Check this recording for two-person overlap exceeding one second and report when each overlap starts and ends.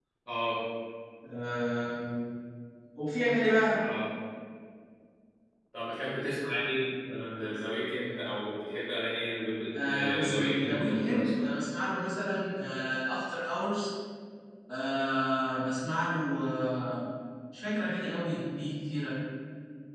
9.8-11.5

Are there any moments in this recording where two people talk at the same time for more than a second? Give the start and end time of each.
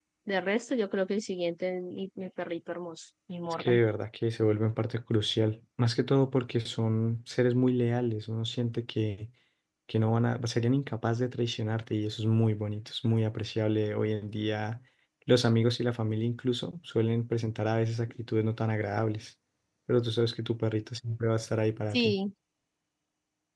none

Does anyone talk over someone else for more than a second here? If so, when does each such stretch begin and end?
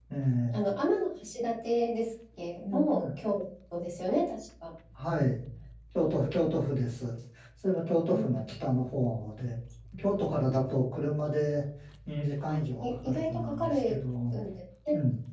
12.5-13.9

